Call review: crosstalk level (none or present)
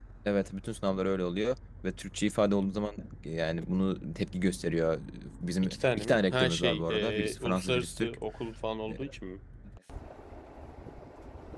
present